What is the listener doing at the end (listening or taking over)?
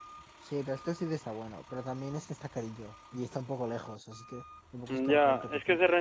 taking over